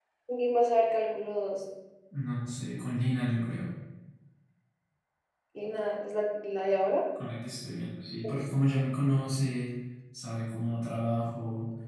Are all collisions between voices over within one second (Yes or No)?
Yes